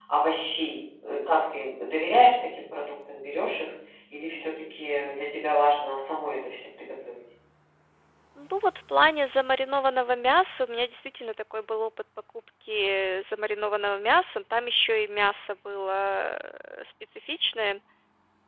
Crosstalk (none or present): none